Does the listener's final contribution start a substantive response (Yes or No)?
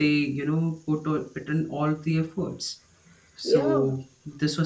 No